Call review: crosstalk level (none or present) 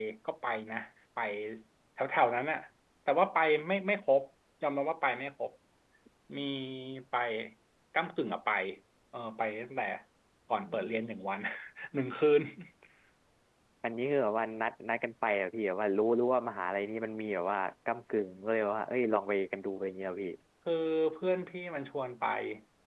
none